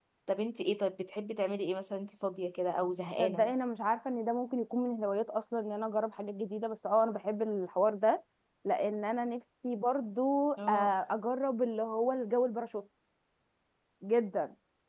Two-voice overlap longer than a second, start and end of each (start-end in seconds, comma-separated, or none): none